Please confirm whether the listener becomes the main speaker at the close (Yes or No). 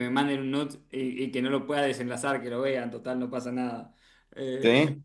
No